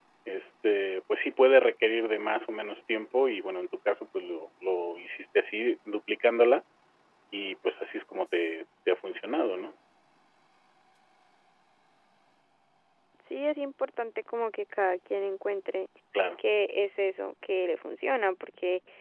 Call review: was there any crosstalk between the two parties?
No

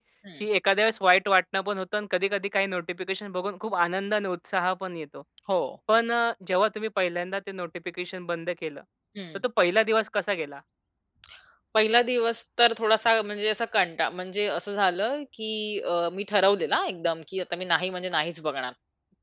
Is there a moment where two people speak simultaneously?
No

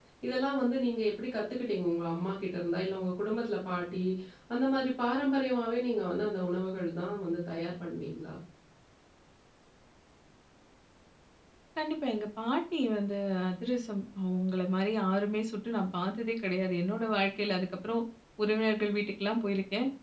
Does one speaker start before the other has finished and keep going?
No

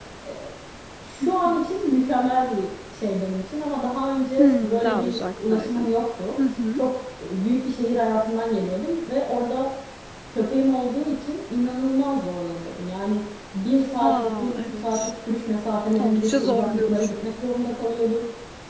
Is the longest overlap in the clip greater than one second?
Yes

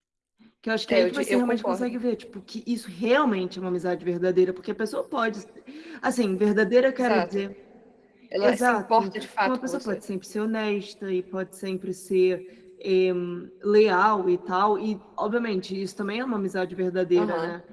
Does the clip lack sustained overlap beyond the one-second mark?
No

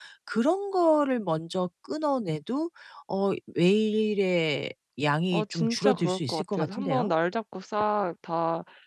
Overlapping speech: Yes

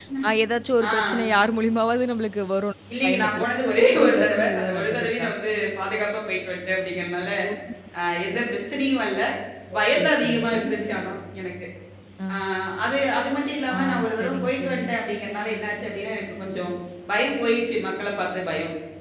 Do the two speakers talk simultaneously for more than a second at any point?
Yes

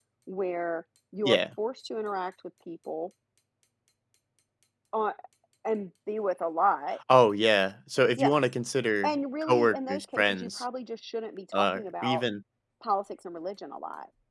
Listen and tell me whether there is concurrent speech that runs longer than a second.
Yes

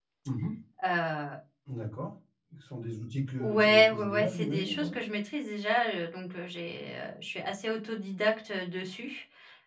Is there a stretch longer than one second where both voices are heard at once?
Yes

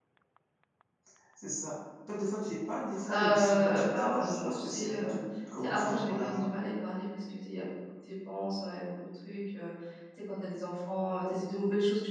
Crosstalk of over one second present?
Yes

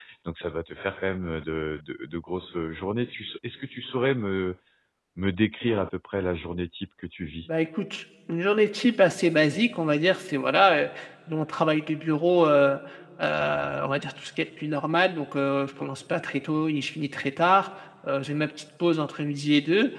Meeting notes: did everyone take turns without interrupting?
Yes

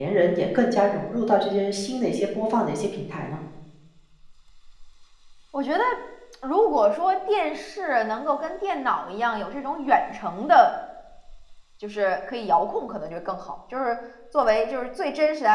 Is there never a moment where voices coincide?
Yes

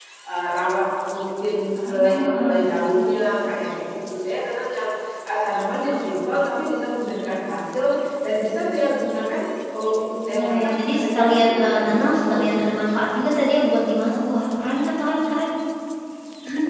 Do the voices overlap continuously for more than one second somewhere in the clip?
Yes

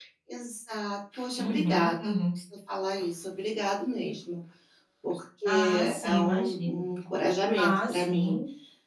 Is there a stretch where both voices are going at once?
Yes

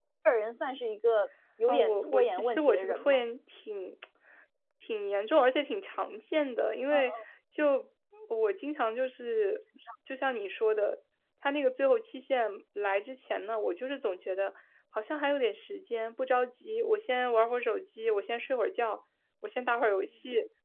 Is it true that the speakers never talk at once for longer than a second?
No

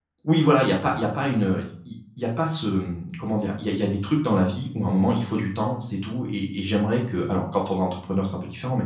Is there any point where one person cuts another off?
No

